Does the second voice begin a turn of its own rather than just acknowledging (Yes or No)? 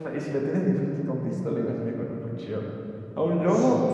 No